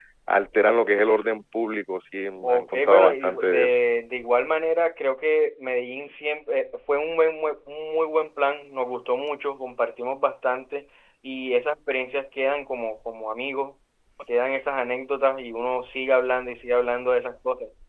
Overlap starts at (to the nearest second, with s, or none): 2 s